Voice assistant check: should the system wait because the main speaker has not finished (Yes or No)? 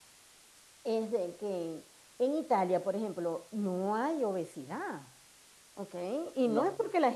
Yes